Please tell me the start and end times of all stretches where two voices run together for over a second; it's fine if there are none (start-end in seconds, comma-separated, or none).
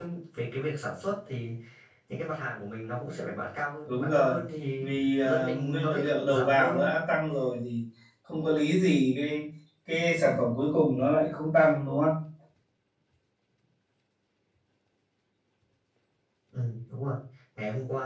4.8-6.9